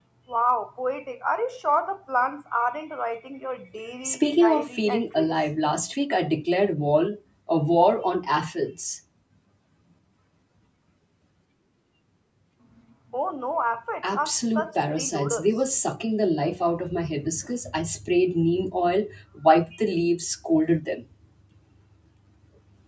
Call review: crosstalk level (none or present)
present